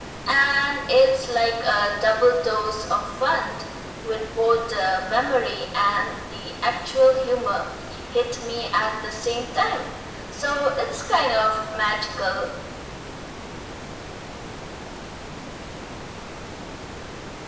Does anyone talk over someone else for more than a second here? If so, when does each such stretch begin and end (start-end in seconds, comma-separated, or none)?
none